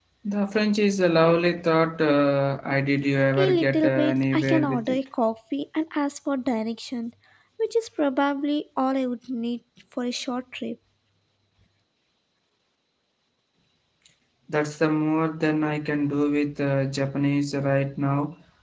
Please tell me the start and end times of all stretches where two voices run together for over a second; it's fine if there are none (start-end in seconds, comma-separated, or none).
3.4-5.0